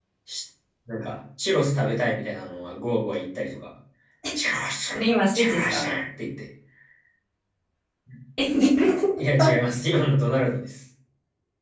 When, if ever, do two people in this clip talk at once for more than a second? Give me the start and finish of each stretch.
none

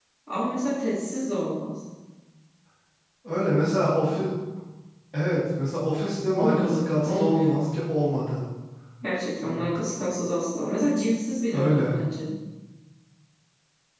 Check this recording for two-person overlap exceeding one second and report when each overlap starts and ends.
6.3-7.6

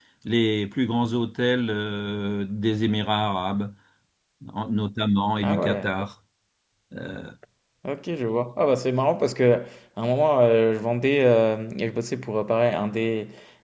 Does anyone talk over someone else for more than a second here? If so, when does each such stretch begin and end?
none

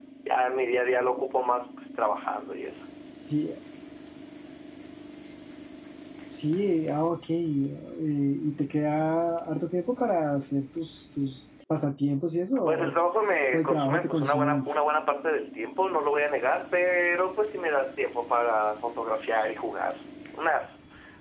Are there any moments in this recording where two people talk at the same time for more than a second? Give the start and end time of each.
13.5-14.7

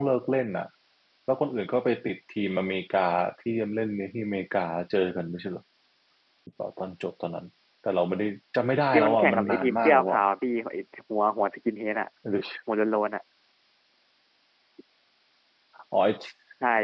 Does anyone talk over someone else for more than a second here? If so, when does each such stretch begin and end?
8.9-10.2

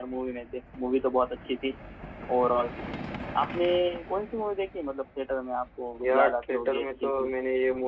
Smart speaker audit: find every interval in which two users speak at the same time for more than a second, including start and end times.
6.0-7.3

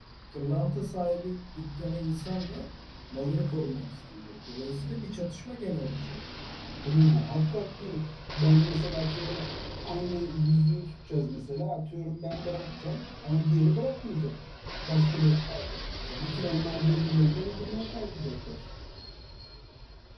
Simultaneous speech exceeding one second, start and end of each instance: none

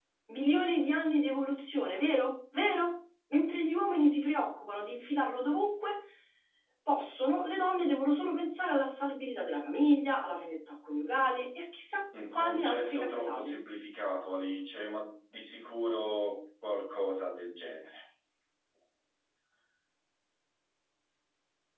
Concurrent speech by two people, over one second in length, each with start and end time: 12.3-13.6

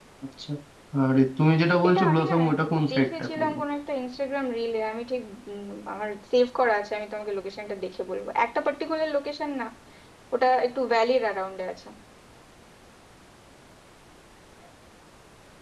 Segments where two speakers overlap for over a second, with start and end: 1.9-3.6

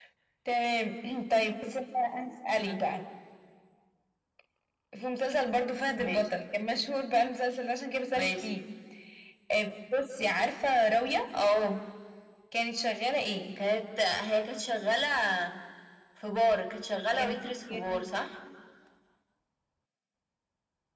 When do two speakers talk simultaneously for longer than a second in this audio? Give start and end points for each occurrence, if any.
none

